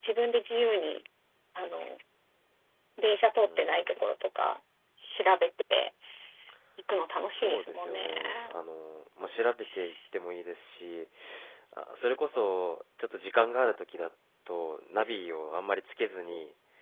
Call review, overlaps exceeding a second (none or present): present